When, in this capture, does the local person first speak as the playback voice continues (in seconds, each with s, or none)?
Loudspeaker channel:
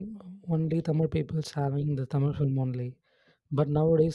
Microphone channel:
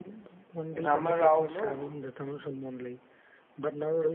0.7 s